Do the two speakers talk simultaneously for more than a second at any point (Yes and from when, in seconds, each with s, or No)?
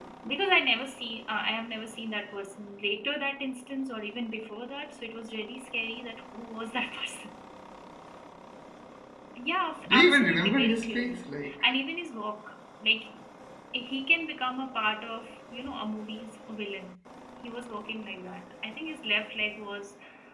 Yes, from 9.9 s